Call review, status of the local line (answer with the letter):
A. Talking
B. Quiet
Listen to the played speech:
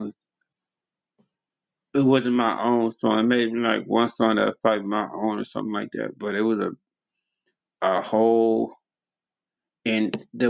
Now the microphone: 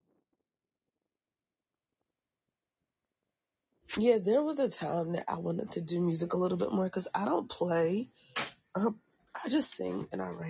A